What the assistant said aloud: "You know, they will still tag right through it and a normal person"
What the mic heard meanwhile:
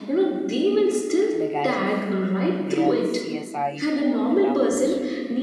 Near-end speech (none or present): present